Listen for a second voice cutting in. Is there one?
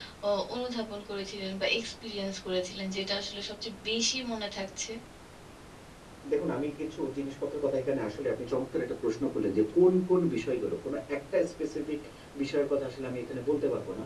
No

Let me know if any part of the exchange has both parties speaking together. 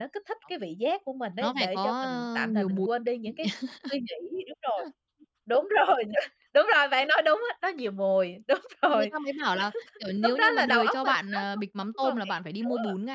Yes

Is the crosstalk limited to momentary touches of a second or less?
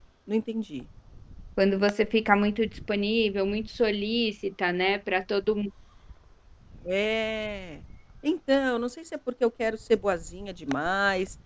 Yes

